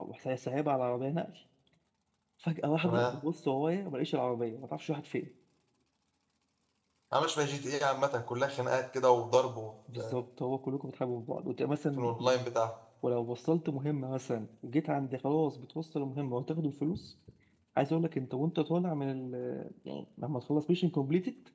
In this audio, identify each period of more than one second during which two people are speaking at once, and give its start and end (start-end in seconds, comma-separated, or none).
none